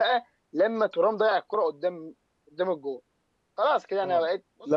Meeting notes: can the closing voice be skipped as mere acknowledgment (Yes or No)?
No